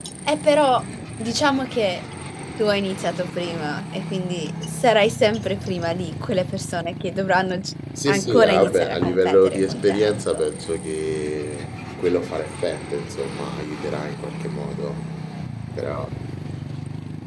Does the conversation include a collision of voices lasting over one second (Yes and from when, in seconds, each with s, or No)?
Yes, from 8.0 s